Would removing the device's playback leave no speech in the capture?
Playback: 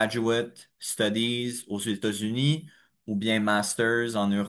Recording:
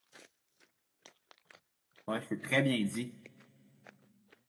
No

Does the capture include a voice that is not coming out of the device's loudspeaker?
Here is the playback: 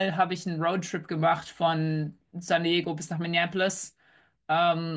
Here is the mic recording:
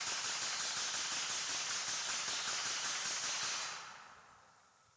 No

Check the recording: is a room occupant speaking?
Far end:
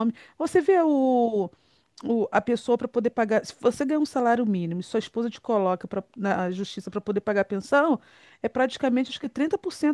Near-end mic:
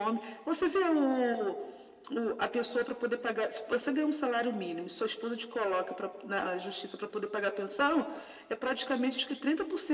No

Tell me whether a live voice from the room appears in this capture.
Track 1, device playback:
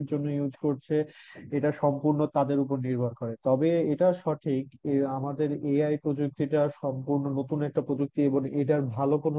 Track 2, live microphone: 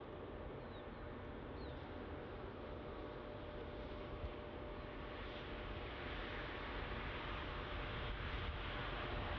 No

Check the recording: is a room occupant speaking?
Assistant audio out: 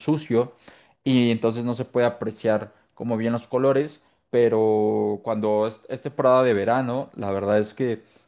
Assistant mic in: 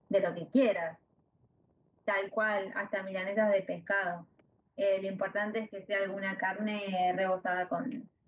Yes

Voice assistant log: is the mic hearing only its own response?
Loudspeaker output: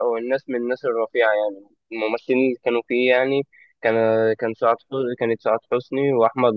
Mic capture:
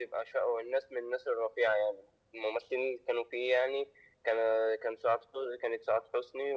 Yes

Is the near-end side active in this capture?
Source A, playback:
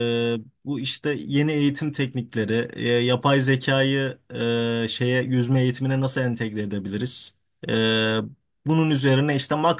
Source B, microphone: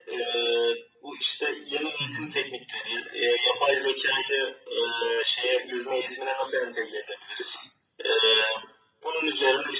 Yes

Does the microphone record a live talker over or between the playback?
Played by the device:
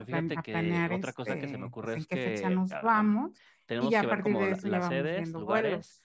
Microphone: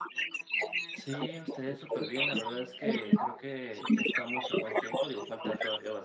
Yes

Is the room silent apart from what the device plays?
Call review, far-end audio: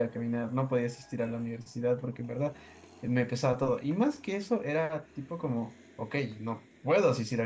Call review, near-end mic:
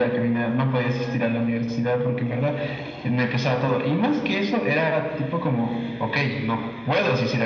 Yes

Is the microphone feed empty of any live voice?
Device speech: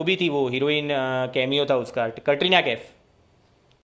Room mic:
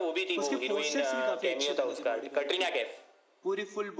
No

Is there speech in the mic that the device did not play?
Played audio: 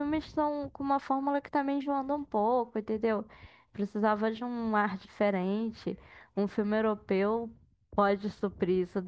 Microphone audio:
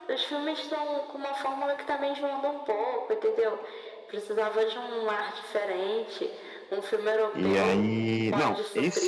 Yes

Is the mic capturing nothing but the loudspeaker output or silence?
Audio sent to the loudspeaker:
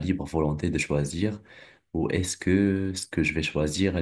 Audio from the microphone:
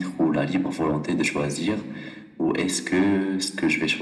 Yes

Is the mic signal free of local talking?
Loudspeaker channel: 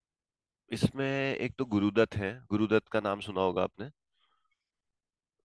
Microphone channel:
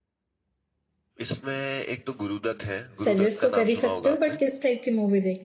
No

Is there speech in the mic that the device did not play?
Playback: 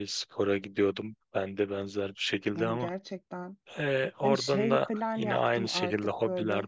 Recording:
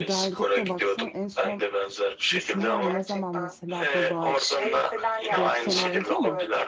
Yes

